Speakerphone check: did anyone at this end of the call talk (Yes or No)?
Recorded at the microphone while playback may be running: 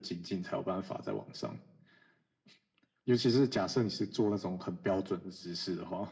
No